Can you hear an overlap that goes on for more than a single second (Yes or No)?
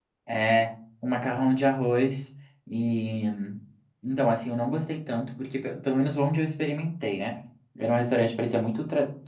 No